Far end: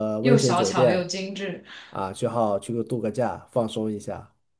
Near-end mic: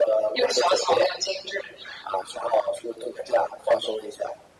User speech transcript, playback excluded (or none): none